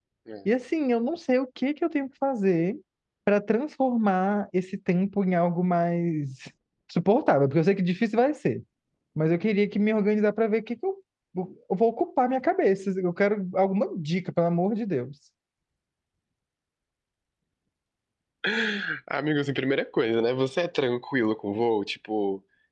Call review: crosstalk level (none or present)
none